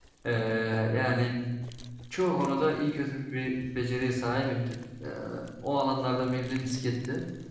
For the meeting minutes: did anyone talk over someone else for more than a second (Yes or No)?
No